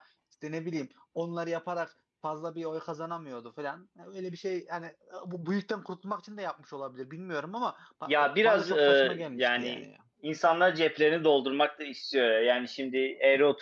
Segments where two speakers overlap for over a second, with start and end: 8.1-9.8

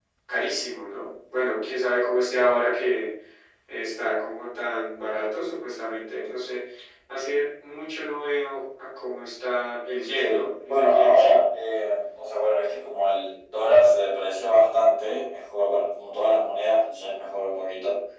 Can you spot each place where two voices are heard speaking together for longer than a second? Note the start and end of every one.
10.2-11.4

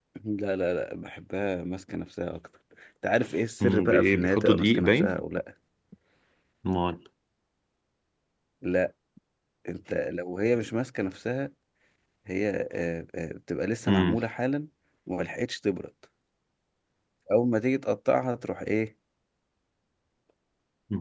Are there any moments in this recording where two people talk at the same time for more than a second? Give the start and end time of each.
3.6-5.1

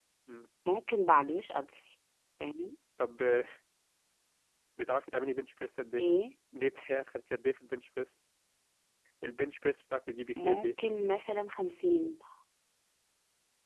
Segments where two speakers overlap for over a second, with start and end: none

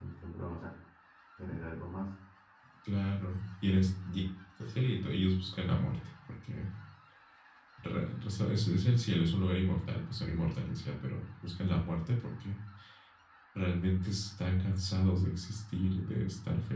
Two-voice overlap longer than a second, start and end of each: none

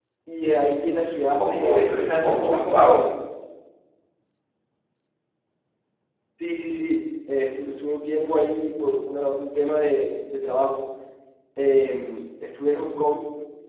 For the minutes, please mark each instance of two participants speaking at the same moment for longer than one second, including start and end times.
1.3-3.0

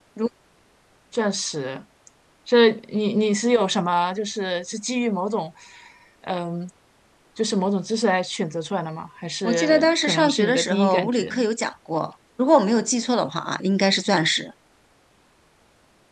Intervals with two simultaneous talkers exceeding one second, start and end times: 9.4-11.4

